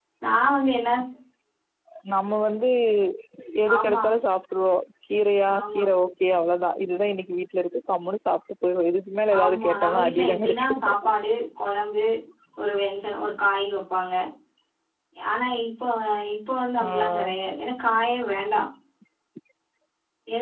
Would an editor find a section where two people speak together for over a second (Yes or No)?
Yes